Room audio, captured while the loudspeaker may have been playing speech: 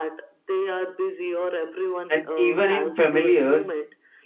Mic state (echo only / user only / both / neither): both